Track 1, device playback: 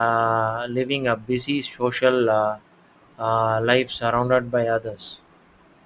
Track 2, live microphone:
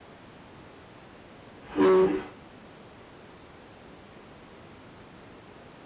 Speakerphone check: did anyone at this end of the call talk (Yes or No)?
Yes